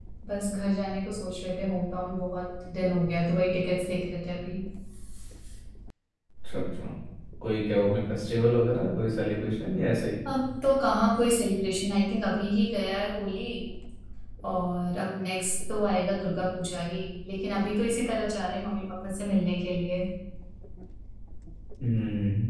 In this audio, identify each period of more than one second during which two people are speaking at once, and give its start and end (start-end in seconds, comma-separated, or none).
none